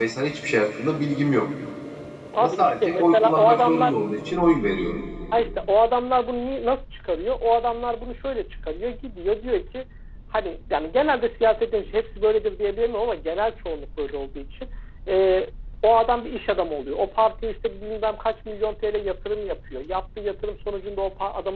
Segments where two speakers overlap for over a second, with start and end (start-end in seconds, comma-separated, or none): 2.4-4.0